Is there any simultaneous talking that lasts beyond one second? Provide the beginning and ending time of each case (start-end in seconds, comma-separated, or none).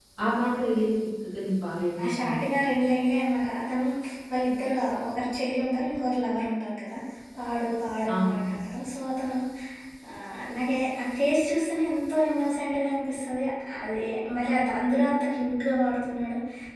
none